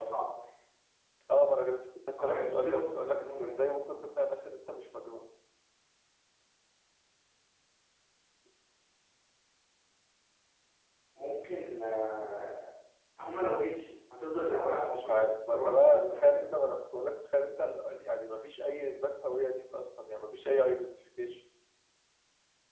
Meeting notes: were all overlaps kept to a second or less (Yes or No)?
No